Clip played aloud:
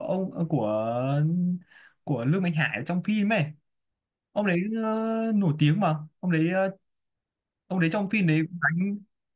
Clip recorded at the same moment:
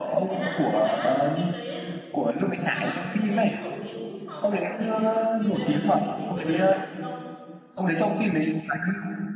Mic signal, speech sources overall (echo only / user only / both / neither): both